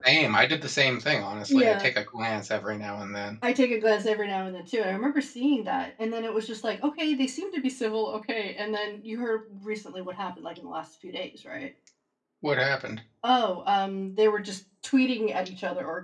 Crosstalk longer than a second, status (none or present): none